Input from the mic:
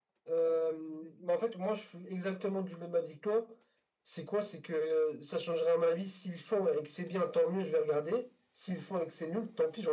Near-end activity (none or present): none